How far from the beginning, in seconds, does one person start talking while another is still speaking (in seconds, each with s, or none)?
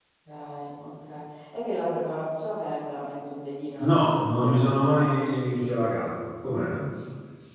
3.8 s